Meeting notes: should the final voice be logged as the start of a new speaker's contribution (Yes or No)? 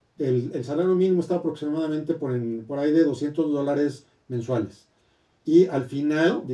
No